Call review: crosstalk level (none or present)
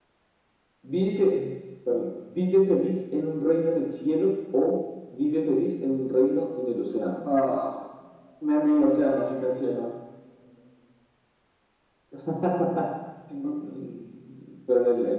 none